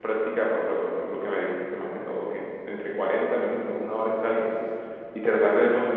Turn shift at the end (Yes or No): No